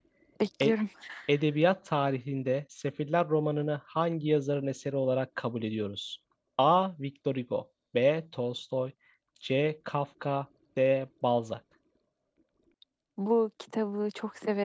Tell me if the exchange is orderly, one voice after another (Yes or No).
Yes